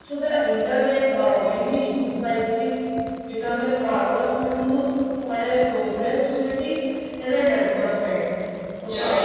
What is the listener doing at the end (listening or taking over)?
listening